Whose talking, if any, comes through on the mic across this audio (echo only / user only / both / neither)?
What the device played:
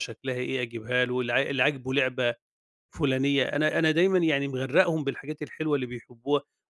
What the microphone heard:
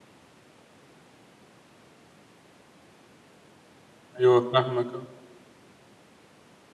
user only